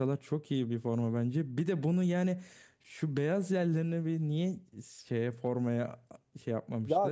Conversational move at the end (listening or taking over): taking over